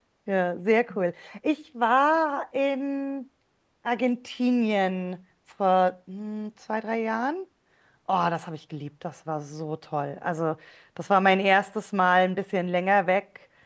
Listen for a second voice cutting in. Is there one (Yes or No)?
No